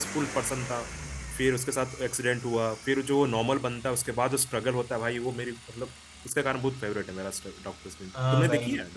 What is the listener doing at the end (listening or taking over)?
taking over